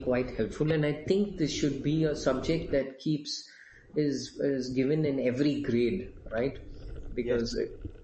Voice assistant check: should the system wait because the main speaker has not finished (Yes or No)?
Yes